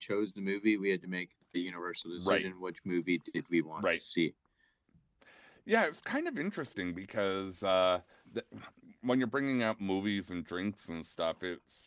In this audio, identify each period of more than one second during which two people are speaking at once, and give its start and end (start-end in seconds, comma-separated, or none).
none